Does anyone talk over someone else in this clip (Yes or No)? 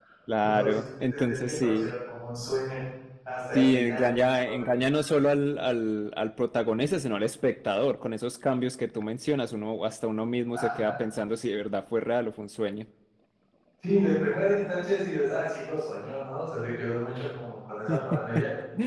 Yes